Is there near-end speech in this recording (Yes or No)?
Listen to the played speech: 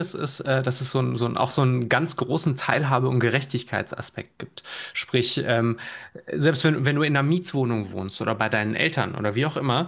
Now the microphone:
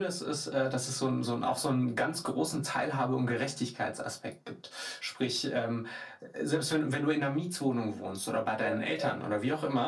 Yes